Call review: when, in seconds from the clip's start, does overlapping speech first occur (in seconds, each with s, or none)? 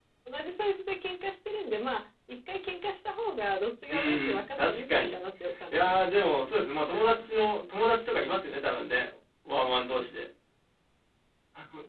3.9 s